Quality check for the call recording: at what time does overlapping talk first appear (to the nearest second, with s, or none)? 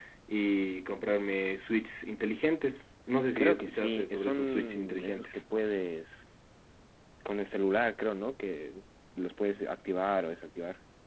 3 s